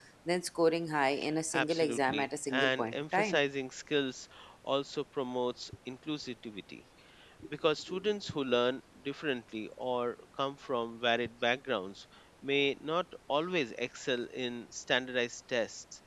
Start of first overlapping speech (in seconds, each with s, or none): 1.5 s